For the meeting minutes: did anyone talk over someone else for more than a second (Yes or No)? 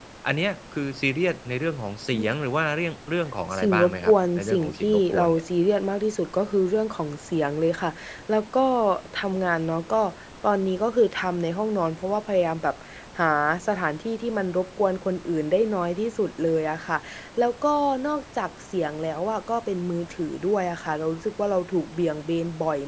Yes